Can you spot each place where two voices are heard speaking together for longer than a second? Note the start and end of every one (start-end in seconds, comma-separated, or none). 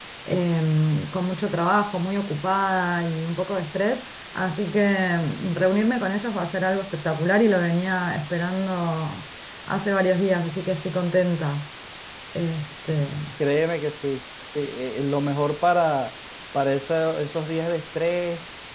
none